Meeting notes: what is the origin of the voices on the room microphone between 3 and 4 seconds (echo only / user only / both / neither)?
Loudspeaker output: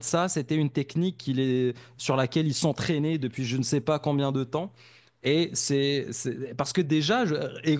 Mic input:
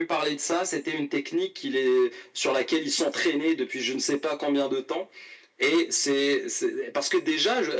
echo only